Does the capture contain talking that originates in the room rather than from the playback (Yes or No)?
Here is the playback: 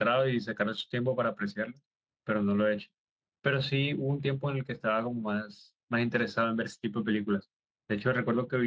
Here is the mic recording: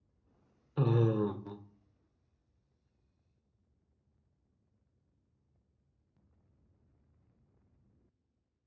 Yes